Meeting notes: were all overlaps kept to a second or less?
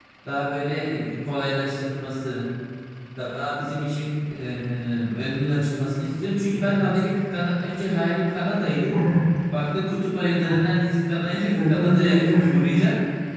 No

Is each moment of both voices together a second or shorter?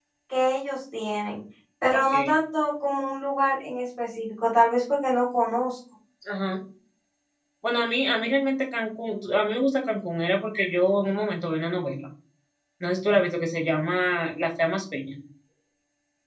Yes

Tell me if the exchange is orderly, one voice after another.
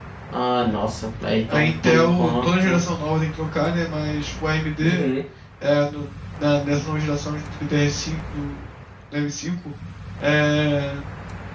No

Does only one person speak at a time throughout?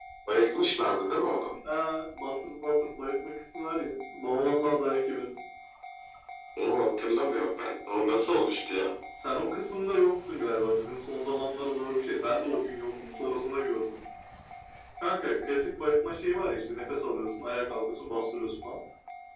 Yes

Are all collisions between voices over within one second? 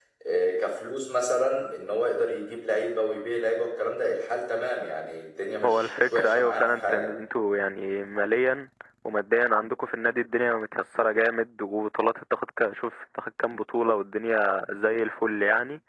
No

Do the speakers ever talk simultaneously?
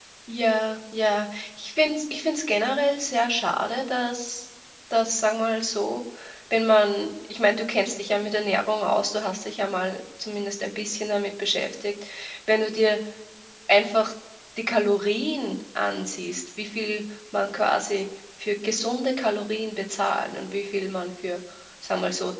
No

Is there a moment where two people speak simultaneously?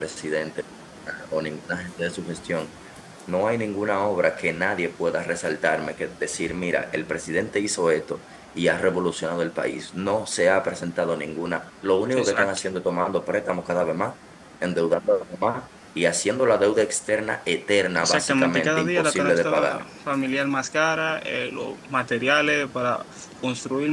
Yes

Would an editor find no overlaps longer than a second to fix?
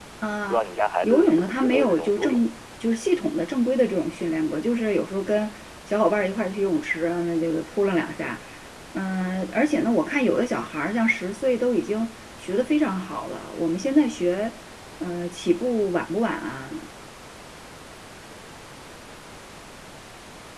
No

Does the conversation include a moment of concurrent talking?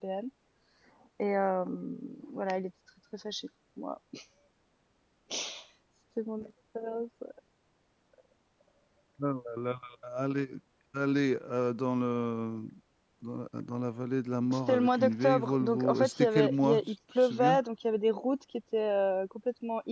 Yes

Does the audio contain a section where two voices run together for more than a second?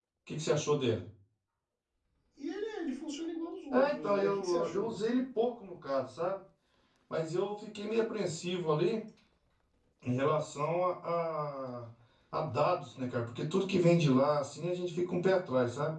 Yes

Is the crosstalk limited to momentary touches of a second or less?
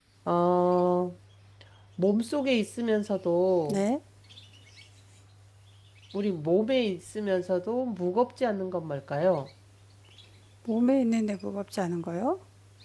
Yes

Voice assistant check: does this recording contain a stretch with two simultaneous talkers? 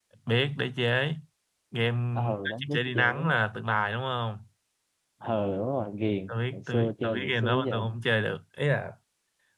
Yes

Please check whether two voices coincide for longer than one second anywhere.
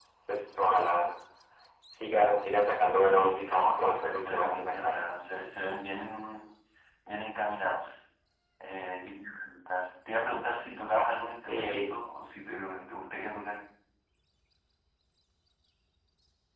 Yes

